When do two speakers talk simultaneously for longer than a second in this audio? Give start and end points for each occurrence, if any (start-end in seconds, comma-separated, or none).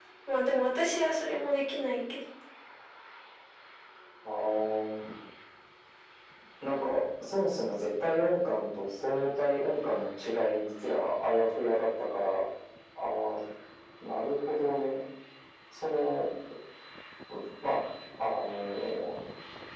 none